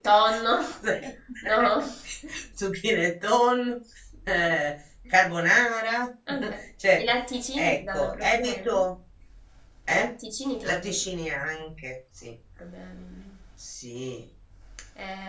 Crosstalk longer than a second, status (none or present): present